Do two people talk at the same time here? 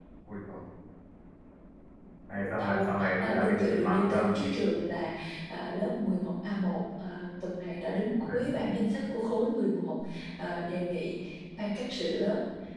Yes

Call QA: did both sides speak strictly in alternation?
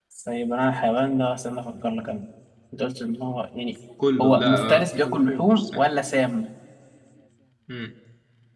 No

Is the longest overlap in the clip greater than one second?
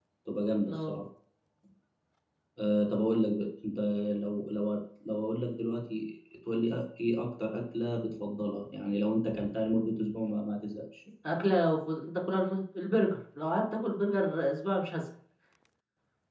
No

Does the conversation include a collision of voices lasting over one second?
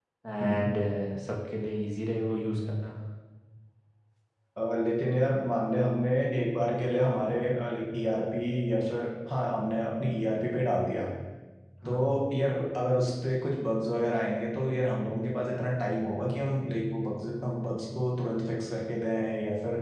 No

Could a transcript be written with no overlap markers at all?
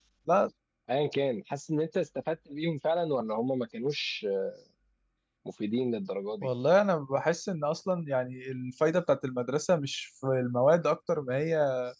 Yes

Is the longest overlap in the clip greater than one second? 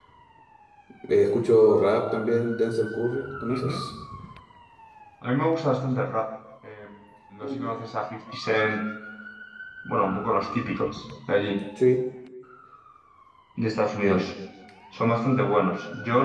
No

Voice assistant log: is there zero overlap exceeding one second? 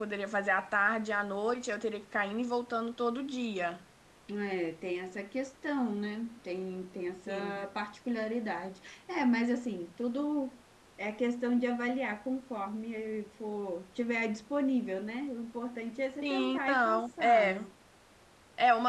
No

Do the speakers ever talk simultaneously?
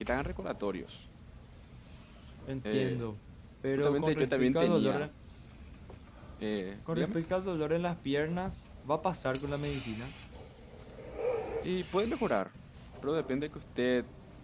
Yes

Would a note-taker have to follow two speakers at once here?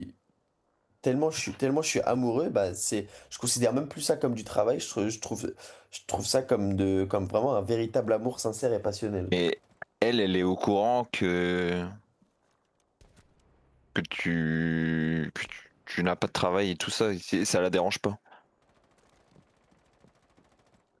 No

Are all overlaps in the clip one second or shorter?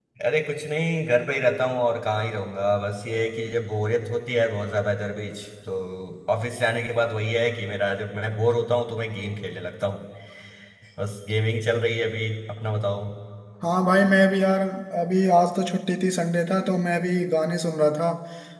Yes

